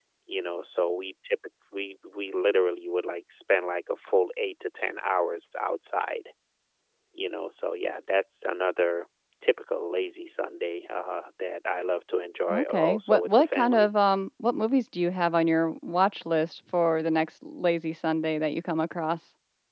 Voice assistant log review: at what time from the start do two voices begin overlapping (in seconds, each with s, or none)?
12.5 s